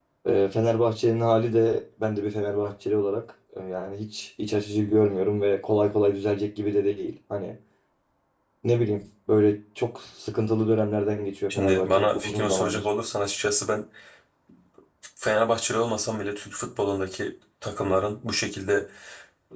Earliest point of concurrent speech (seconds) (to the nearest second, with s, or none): 12 s